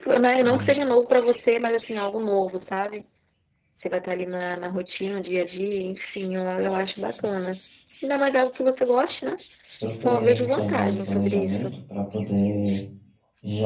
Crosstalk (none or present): present